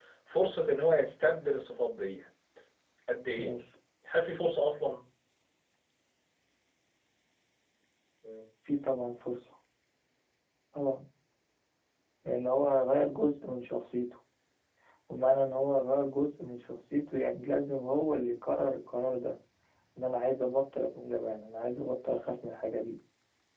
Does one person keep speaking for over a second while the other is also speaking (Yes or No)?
No